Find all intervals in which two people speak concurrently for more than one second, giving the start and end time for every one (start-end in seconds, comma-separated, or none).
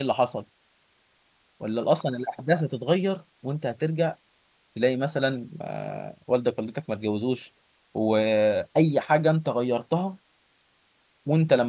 none